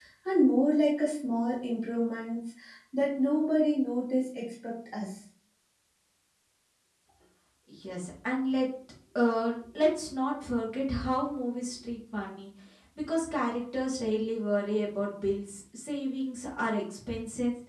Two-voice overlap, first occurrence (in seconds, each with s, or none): none